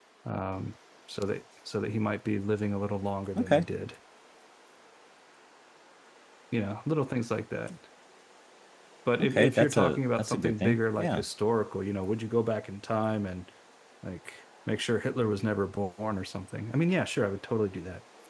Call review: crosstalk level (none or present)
present